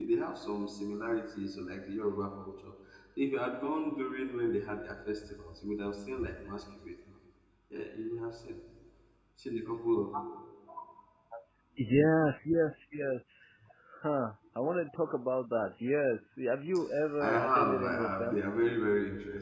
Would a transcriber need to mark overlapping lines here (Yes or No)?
Yes